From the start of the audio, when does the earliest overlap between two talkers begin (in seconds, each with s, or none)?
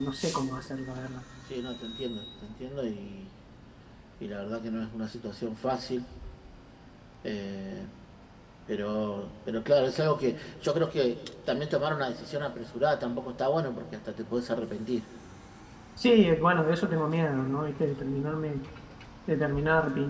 none